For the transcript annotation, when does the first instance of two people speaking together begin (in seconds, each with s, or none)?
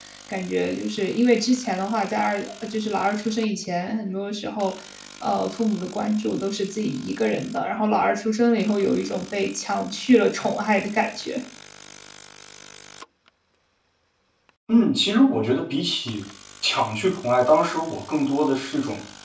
none